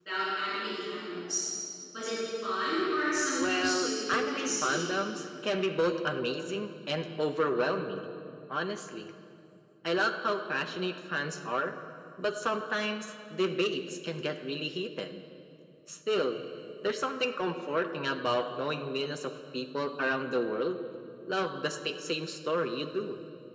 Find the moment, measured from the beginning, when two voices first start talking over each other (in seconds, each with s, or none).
3.3 s